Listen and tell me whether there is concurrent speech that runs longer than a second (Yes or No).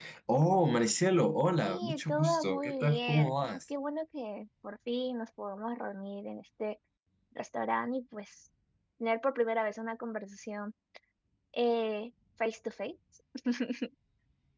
Yes